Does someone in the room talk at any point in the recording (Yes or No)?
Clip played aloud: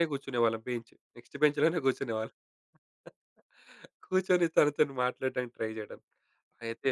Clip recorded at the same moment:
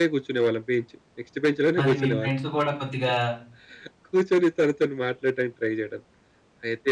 Yes